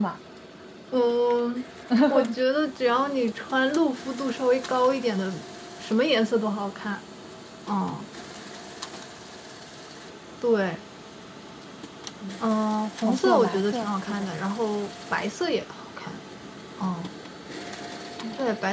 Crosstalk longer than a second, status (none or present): present